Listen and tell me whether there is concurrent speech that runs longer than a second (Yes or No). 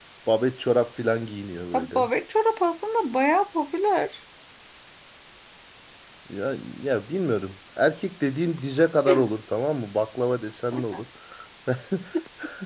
No